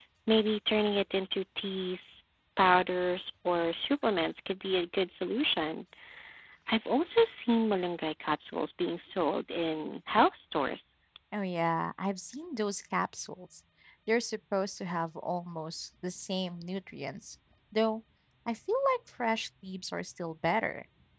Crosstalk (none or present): none